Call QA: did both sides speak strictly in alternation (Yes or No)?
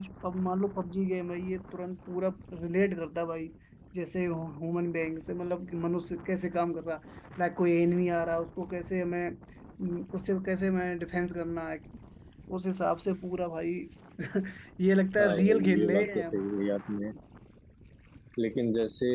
No